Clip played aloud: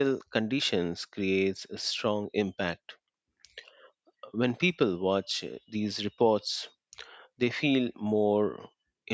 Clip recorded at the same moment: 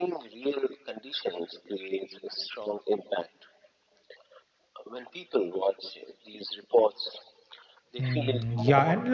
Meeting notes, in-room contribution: present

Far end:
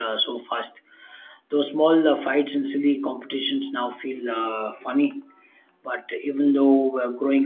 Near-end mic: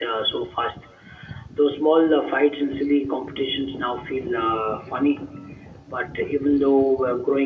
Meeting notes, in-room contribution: none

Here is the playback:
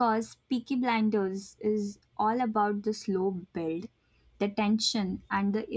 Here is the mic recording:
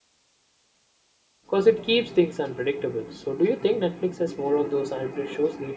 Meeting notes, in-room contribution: present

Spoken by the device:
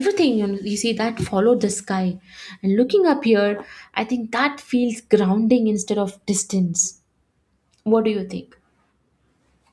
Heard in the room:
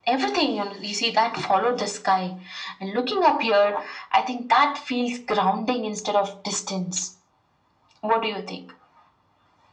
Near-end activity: none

